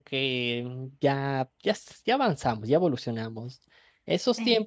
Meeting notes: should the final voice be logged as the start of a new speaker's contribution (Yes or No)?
No